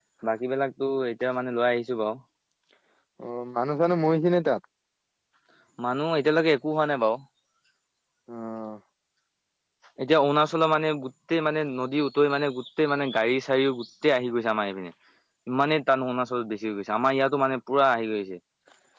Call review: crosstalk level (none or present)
none